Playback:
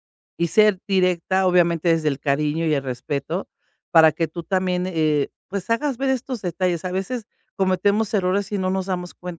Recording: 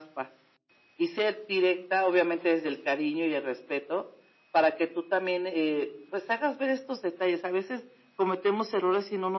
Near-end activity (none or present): none